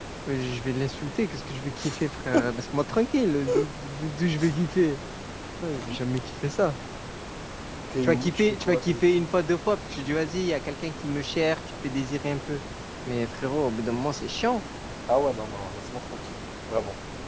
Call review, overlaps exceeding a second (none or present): present